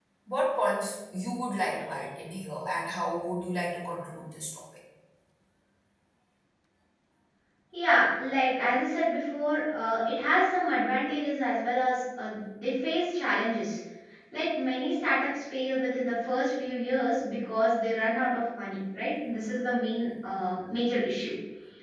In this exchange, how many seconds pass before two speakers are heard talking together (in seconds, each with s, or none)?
none